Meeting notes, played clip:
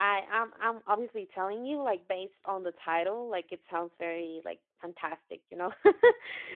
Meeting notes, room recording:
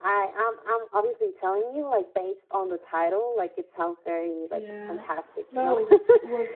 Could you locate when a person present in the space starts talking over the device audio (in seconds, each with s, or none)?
4.5 s